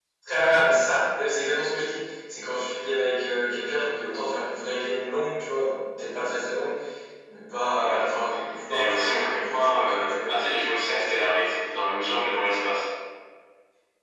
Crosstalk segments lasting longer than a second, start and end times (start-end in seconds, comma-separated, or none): 8.7-10.3